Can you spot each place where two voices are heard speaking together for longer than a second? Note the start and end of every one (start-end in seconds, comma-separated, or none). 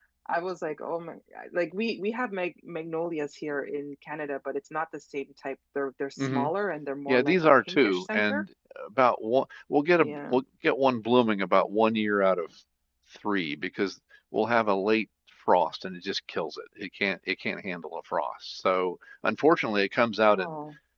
7.1-8.4